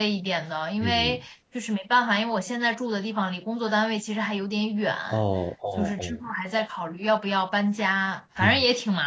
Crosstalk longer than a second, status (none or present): none